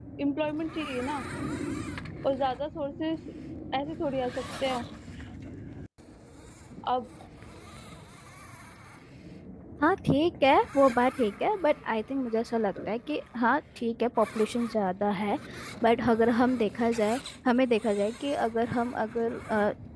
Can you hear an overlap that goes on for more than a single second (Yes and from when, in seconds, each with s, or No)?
No